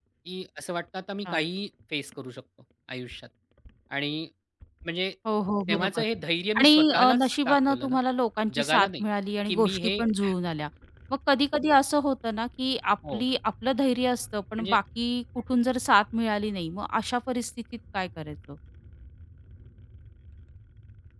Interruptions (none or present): present